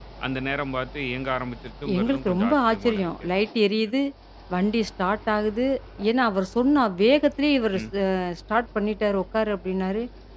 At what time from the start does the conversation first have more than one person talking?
2 s

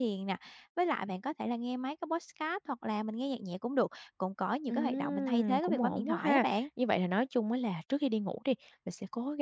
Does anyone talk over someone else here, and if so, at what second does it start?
5 s

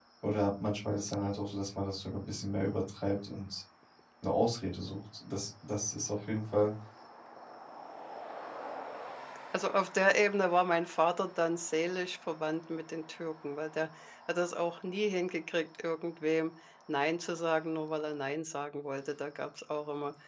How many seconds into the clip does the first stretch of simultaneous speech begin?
none

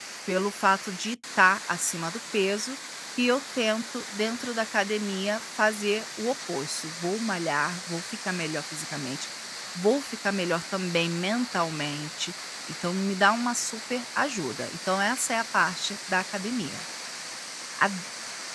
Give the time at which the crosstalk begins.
none

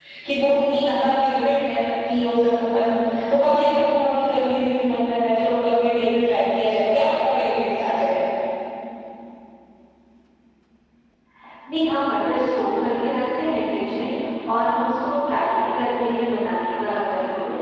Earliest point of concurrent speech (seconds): none

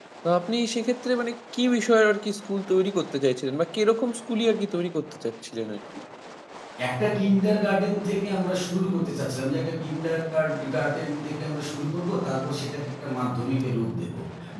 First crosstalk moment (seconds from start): none

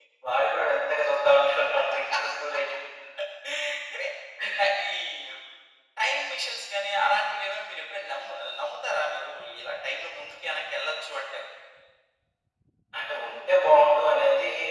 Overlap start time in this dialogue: none

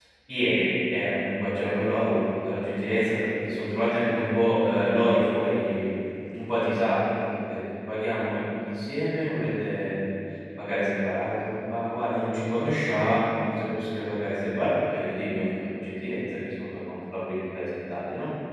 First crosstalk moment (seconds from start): none

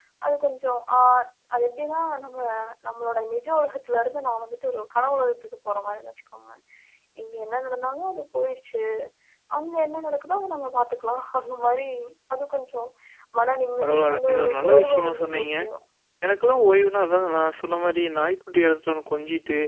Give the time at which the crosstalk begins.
14 s

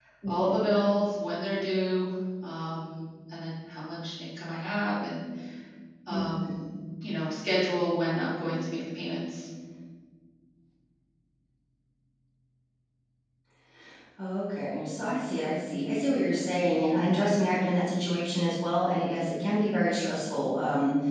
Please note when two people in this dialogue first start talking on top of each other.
none

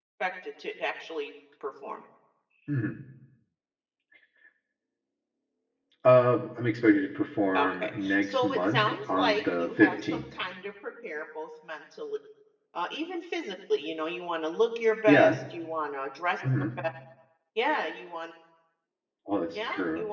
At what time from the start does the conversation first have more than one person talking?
8 s

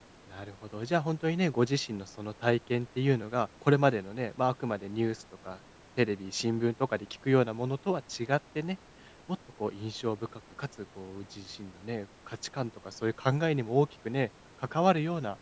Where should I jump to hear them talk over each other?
none

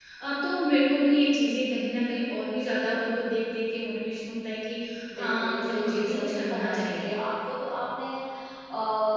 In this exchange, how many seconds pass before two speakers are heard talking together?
5 s

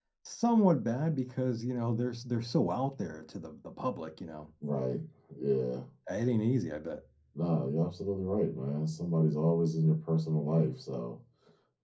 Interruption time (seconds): none

